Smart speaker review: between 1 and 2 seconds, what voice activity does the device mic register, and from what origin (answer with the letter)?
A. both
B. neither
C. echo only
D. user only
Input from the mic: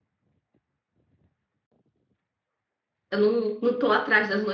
B